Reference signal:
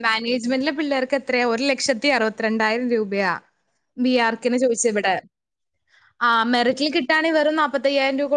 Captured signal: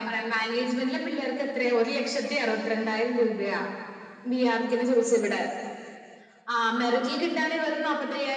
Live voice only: none

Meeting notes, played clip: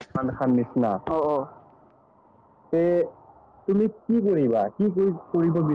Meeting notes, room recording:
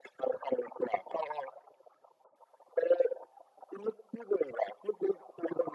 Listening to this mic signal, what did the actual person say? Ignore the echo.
none

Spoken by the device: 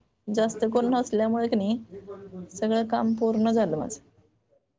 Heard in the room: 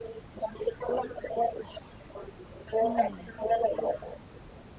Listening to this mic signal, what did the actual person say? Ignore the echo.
हम्म.

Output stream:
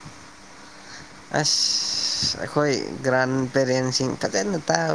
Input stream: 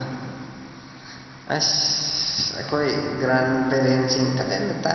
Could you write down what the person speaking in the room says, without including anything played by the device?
none

